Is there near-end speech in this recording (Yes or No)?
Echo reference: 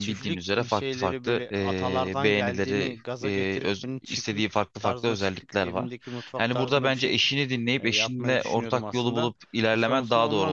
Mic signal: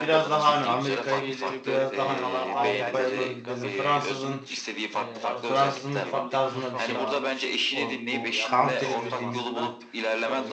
Yes